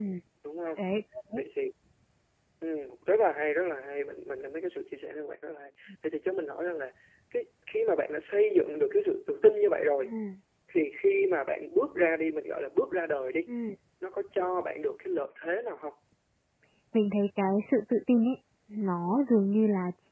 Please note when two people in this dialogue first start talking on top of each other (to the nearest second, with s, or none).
none